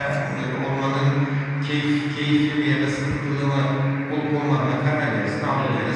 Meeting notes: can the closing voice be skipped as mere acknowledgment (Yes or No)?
No